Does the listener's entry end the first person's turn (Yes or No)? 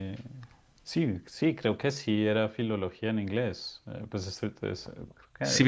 Yes